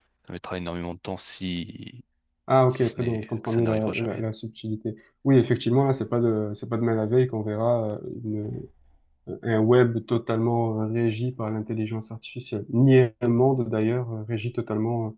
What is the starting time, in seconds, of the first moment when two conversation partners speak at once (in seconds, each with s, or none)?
2.7 s